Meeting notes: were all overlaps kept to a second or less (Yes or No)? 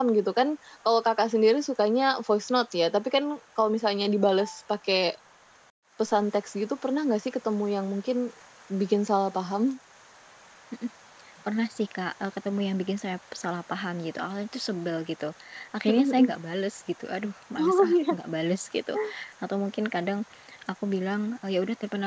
Yes